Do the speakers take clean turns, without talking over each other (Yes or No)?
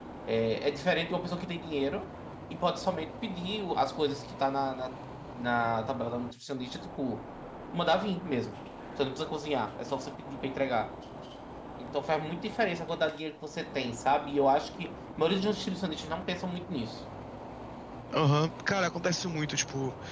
Yes